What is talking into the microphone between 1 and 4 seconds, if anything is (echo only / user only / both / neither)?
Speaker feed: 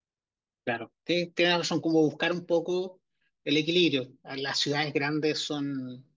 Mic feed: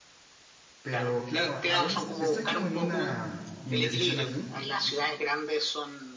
both